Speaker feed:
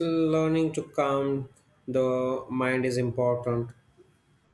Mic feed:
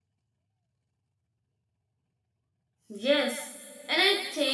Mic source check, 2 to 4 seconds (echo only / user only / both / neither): user only